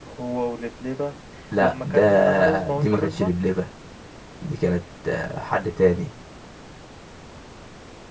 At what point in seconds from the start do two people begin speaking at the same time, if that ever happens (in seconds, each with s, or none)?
1.6 s